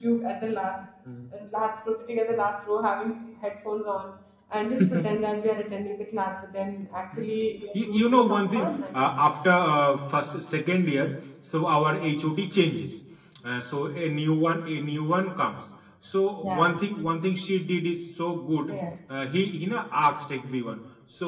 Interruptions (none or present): present